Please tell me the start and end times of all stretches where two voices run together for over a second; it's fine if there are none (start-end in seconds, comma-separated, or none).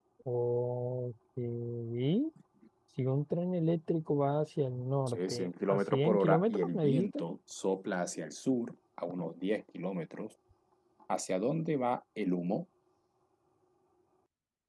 5.1-7.2